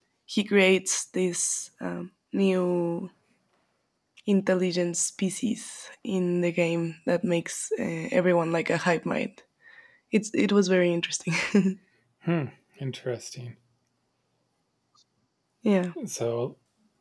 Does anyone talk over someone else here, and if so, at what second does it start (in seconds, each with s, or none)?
none